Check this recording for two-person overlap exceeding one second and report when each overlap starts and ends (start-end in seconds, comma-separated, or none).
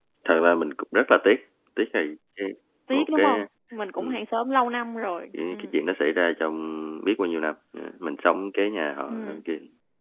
none